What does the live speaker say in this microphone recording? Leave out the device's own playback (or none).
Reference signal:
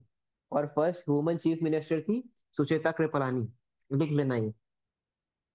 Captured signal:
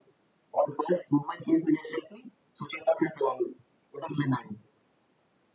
none